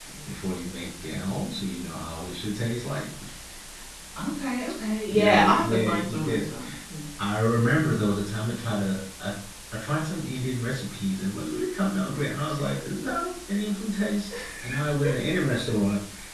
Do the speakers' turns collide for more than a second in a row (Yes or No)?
Yes